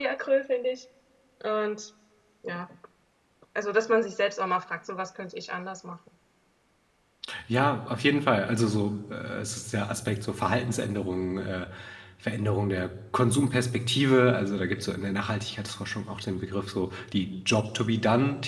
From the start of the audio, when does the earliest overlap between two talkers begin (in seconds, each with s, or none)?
none